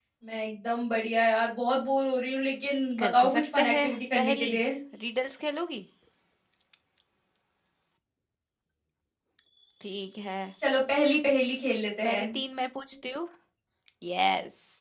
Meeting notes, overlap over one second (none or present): present